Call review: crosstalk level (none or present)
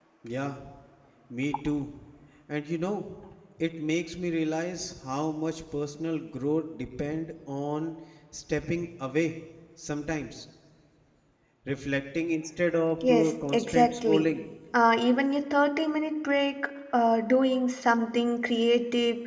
present